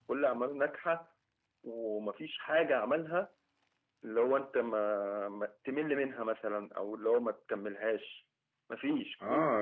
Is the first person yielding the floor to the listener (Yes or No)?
Yes